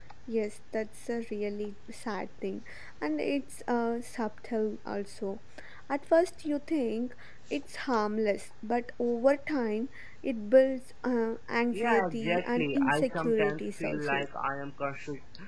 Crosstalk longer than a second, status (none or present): present